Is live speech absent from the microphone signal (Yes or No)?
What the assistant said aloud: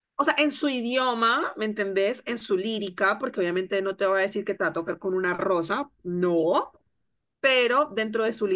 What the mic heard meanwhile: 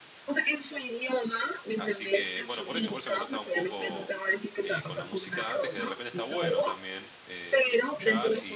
No